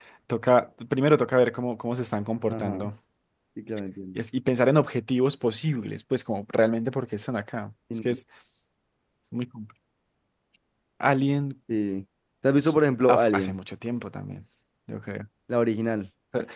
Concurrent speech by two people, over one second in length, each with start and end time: none

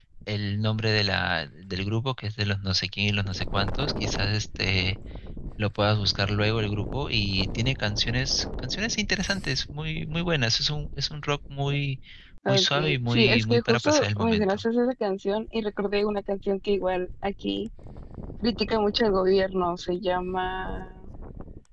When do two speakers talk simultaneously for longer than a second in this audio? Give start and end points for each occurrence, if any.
12.5-14.6

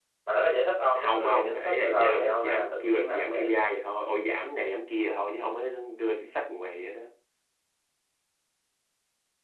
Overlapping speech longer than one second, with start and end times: 1.0-3.5

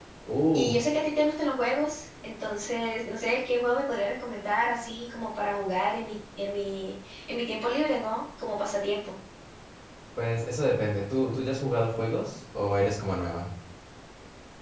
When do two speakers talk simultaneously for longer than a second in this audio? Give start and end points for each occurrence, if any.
none

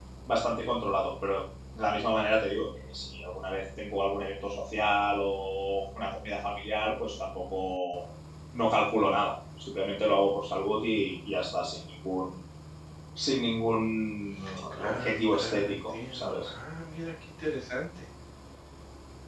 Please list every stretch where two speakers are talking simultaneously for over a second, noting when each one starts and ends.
14.7-16.5

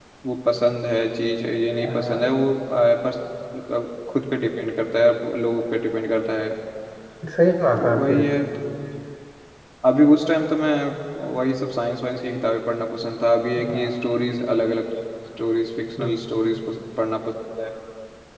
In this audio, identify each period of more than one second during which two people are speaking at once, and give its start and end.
none

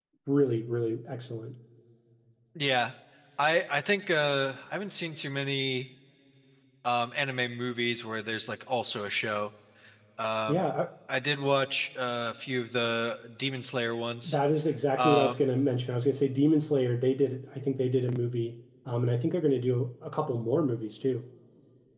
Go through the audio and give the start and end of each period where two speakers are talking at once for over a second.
none

